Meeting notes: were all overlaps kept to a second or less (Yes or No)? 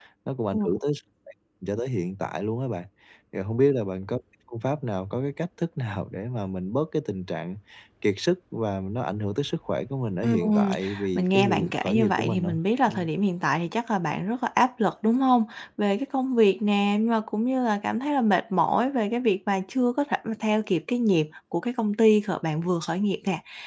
No